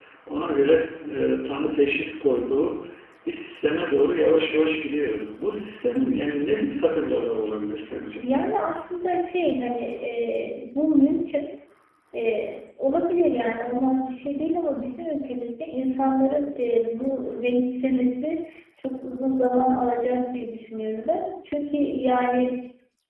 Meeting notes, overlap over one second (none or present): none